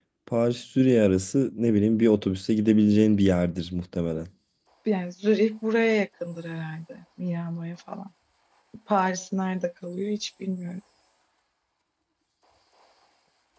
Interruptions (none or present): none